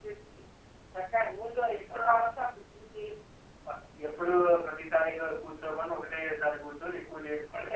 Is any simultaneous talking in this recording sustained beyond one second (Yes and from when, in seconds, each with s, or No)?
No